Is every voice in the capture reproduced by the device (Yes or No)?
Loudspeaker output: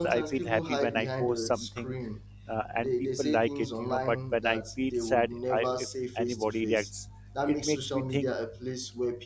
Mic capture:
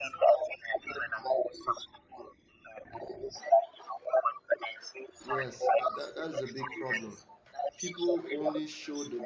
No